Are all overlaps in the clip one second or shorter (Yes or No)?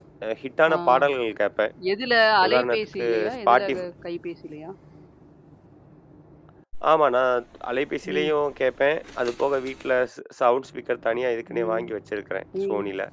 No